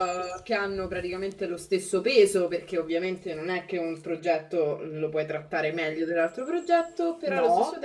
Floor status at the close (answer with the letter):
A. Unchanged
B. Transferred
A